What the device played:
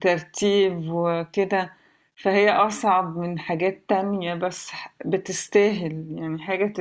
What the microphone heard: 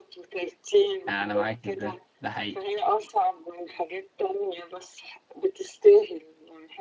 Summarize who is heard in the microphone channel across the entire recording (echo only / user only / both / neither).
both